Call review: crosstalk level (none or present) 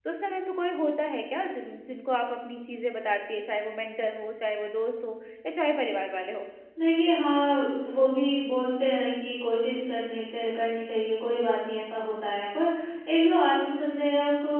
none